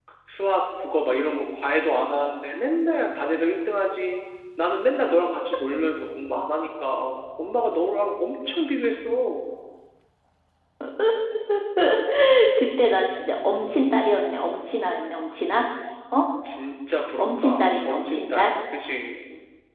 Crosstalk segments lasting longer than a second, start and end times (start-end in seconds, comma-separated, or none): 17.2-18.5